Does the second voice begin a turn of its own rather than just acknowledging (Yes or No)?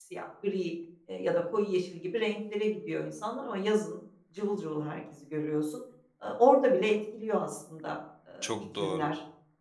Yes